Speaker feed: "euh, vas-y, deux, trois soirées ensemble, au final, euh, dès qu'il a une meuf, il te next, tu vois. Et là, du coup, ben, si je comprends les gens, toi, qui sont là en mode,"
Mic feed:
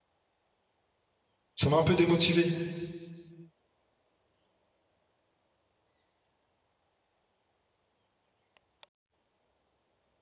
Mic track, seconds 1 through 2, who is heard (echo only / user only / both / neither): user only